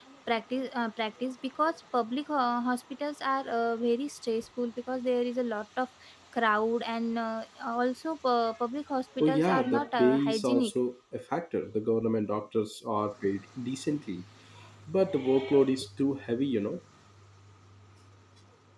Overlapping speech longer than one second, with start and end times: 9.2-10.7

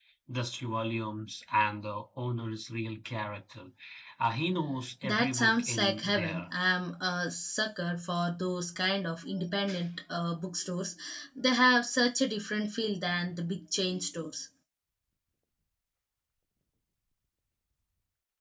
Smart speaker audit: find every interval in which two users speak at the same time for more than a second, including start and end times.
5.0-6.5

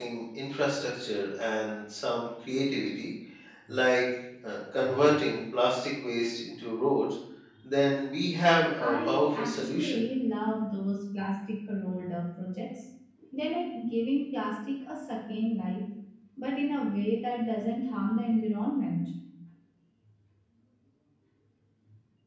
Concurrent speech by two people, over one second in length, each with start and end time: 8.8-10.0

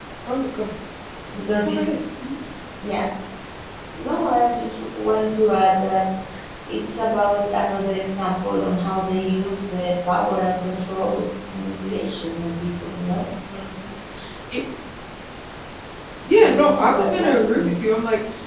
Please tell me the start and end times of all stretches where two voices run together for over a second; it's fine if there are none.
16.3-17.8

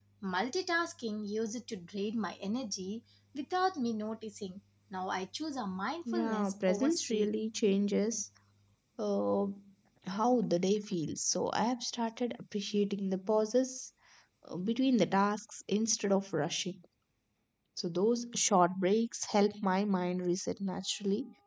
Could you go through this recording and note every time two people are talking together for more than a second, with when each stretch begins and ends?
6.1-7.3

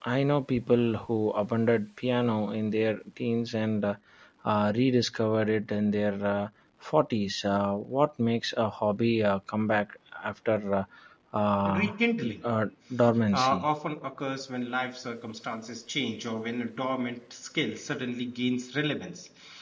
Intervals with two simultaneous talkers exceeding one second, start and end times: none

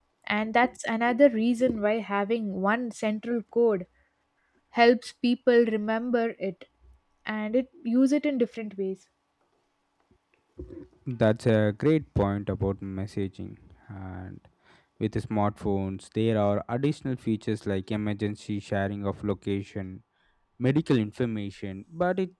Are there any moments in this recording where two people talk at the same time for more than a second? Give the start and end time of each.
none

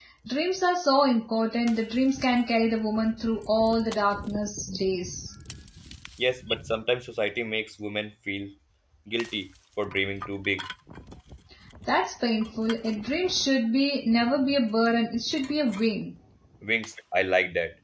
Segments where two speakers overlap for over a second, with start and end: none

